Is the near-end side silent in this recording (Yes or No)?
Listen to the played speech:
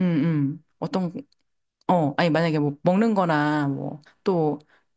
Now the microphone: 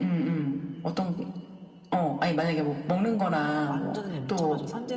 No